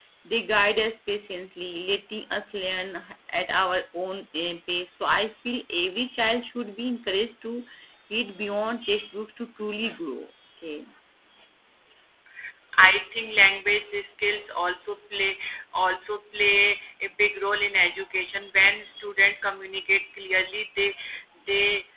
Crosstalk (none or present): none